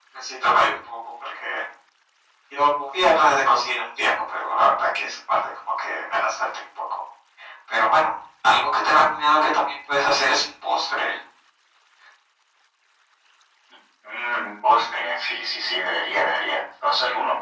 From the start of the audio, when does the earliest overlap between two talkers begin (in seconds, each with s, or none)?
none